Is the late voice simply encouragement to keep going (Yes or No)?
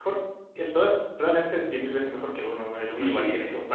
No